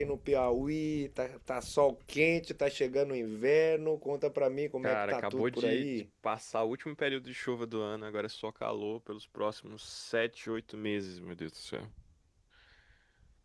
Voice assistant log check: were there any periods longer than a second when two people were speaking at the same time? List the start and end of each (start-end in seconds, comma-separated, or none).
4.8-6.0